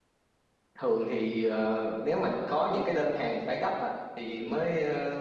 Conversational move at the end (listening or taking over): listening